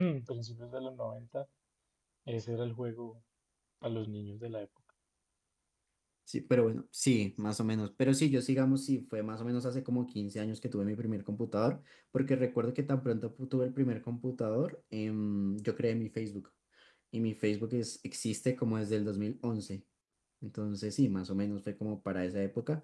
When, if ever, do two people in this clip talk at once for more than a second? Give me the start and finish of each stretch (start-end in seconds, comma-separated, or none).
none